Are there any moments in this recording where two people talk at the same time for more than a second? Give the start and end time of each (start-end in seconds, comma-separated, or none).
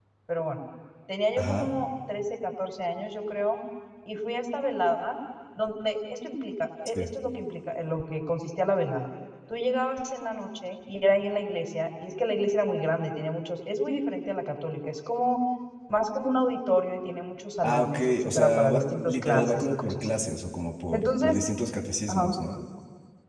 17.6-20.1